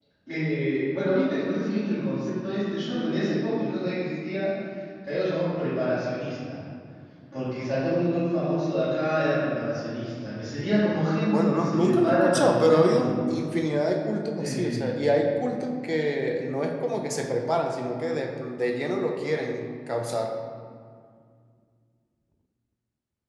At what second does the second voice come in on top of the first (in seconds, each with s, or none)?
11.3 s